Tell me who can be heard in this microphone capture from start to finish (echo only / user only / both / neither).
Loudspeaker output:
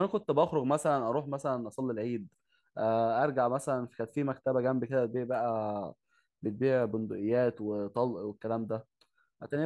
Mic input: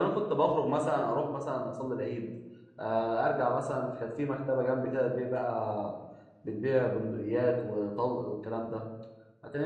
echo only